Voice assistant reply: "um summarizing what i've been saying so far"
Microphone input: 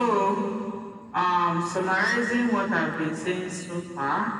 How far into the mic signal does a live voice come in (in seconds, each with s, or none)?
none